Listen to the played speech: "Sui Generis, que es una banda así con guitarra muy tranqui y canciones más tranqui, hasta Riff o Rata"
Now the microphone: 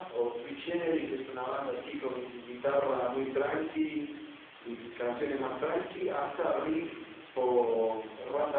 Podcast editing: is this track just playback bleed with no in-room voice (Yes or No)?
Yes